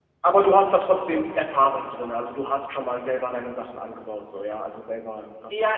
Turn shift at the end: Yes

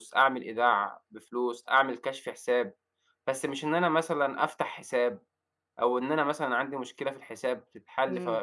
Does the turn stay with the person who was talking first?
No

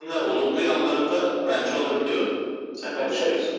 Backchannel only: No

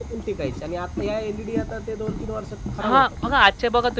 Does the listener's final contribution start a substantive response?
Yes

